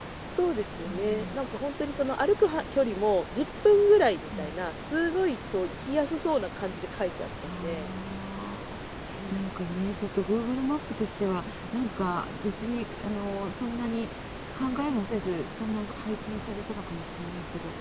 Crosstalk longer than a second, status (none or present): none